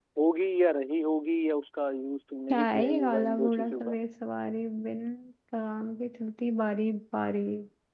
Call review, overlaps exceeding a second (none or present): present